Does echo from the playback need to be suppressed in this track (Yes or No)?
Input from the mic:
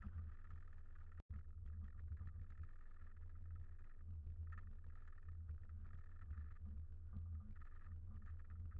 No